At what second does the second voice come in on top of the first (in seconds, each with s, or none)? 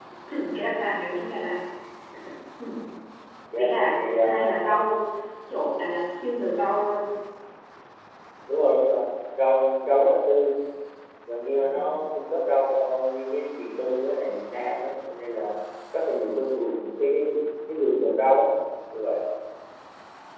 3.6 s